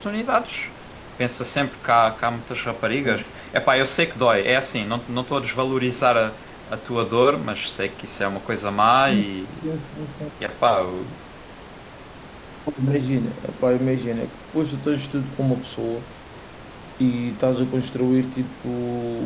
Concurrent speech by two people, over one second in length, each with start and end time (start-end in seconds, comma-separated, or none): none